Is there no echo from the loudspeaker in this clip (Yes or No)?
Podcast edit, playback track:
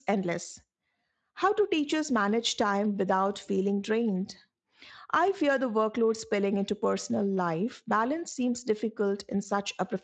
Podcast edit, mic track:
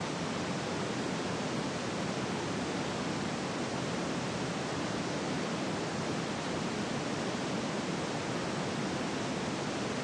Yes